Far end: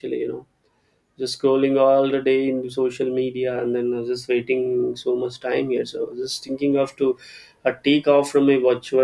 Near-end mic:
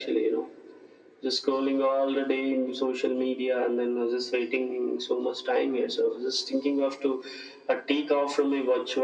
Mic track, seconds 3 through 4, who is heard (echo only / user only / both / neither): echo only